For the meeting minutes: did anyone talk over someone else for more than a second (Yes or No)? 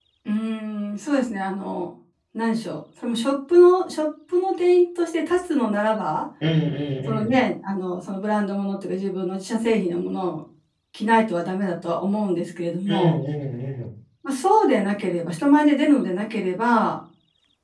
No